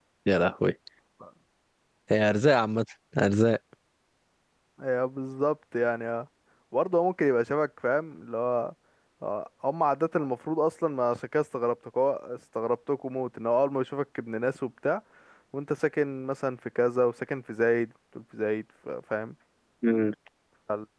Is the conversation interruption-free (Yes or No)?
Yes